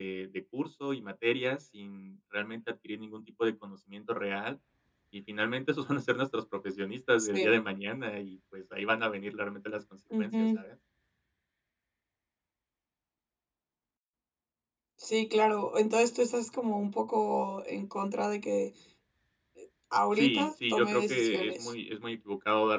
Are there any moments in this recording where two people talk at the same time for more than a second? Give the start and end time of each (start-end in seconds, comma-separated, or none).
20.1-21.7